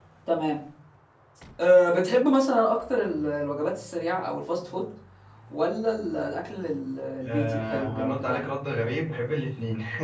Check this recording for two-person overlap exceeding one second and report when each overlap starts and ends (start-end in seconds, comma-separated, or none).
7.3-8.5